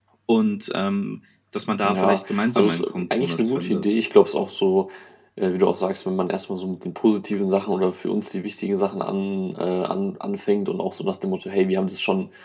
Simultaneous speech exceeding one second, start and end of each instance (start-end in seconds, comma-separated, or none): 1.8-3.8